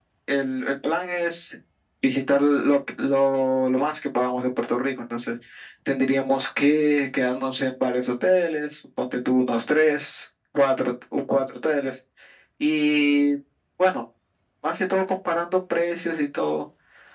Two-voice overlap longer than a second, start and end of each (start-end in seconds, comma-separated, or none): none